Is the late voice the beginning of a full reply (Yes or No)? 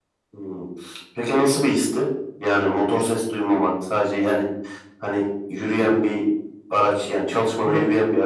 Yes